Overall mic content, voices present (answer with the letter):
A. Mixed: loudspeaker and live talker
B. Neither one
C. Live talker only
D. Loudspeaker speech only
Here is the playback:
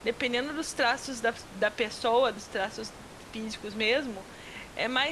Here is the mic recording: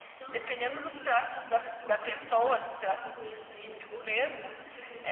A